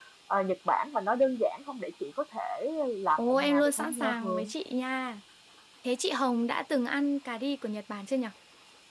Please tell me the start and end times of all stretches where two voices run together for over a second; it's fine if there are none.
3.2-4.5

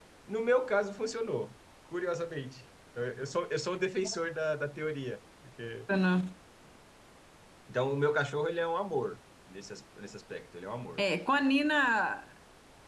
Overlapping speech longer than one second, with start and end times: none

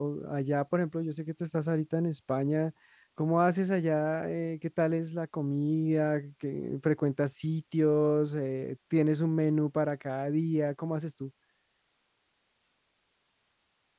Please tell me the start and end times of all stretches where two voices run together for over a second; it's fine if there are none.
none

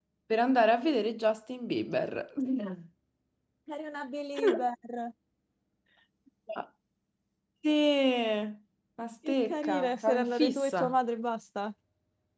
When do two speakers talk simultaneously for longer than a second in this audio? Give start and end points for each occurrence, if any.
9.3-10.9

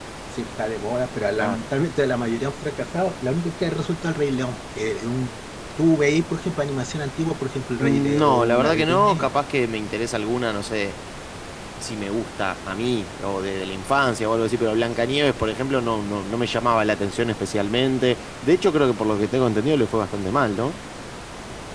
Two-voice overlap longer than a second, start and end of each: 7.8-9.4

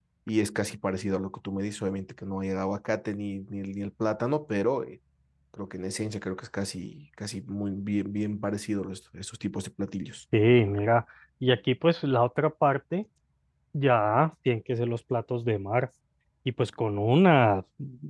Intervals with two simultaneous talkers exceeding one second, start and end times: none

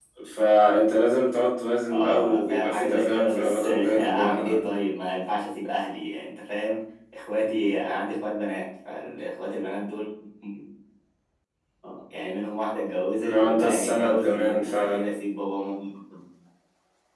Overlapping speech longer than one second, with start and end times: 1.9-4.7, 13.2-15.1

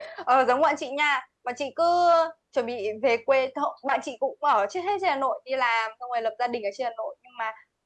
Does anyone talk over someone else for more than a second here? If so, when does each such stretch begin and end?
none

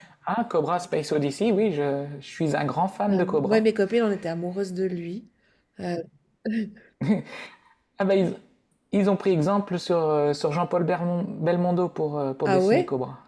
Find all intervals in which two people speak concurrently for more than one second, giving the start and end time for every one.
none

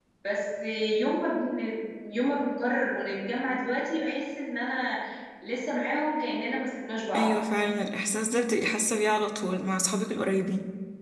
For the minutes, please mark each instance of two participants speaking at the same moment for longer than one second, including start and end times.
none

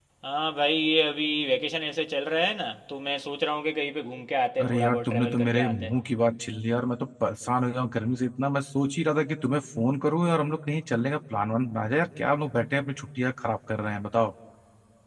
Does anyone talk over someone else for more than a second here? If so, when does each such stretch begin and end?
4.6-5.9

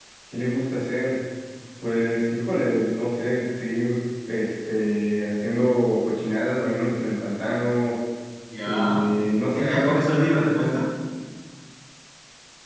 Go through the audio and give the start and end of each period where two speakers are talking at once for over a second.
9.5-10.8

